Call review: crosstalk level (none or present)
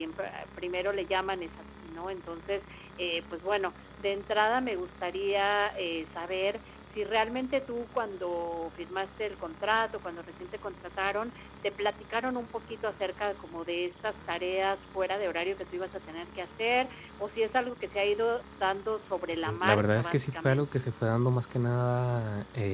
present